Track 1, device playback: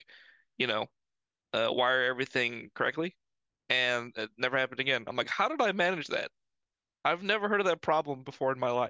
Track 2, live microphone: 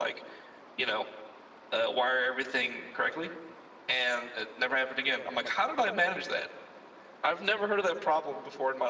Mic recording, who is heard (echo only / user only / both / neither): echo only